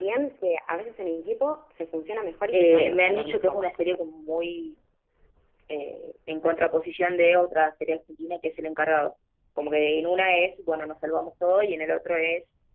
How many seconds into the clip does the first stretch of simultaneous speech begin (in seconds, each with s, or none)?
2.5 s